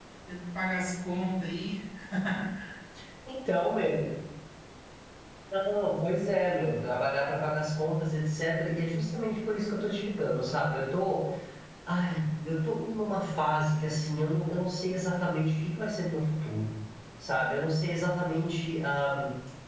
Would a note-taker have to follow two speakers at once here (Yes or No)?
No